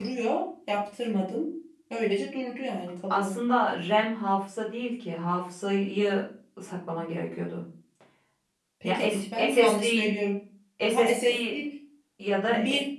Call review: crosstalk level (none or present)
present